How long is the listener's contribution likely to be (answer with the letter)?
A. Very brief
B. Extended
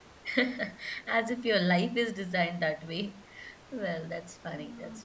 A